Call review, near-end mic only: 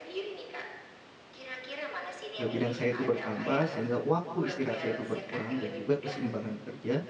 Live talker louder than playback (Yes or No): Yes